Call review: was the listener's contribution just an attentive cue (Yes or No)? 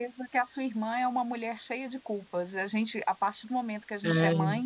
Yes